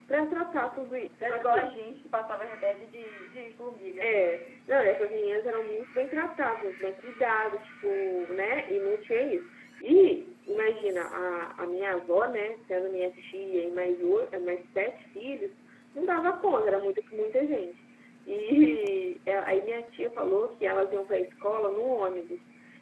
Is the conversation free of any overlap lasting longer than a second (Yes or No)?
Yes